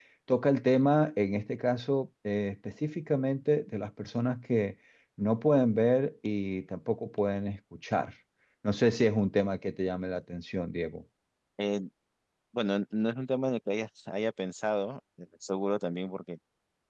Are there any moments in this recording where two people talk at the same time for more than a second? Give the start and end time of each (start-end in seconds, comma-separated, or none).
none